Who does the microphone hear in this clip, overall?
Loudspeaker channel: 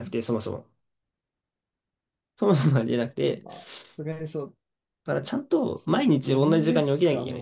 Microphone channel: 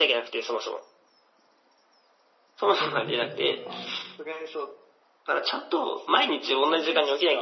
both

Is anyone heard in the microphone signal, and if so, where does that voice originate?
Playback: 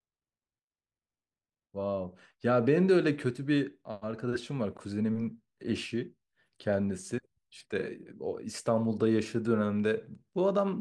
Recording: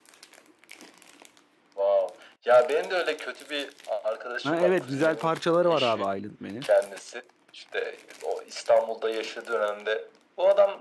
both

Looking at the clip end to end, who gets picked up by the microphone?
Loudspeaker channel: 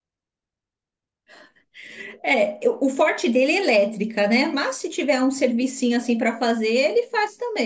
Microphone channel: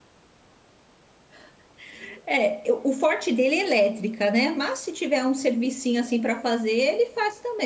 echo only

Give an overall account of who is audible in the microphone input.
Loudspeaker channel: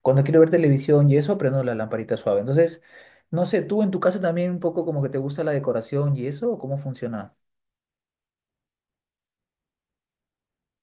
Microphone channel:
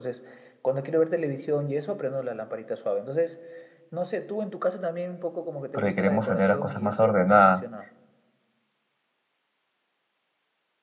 both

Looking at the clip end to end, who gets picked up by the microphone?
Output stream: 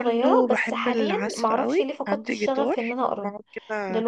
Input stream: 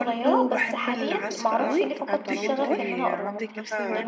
both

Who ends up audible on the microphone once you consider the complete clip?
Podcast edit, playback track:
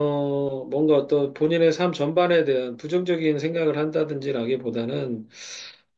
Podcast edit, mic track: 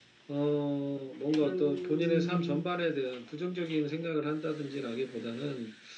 both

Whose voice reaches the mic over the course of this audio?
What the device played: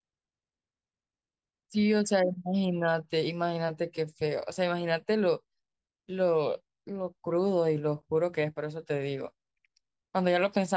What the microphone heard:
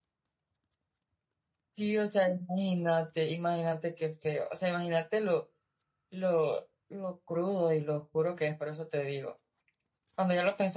echo only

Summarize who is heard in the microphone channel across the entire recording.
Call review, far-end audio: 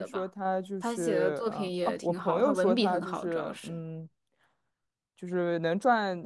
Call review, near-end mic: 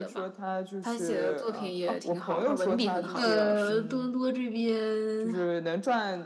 both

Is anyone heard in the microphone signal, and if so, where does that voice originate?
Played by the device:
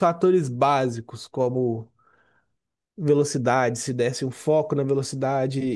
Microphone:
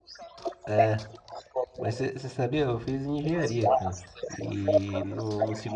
both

